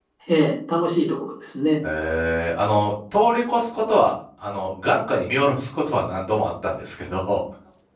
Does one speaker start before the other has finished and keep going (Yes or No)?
No